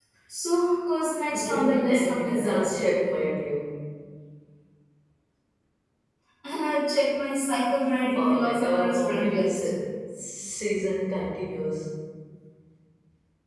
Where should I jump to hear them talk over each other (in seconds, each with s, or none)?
1.4 s